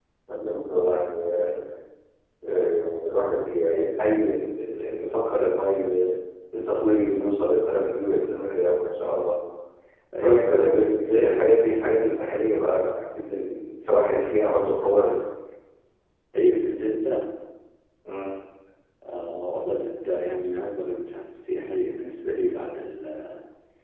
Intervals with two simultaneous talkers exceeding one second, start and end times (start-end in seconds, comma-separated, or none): 10.2-11.5